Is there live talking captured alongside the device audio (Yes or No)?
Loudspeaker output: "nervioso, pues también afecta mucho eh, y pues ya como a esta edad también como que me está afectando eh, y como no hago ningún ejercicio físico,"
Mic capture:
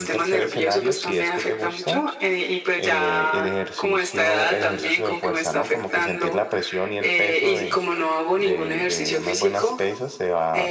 Yes